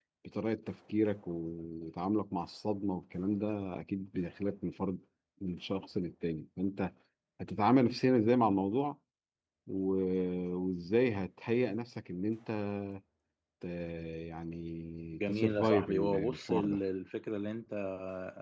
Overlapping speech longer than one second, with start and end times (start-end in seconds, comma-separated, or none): 15.1-16.8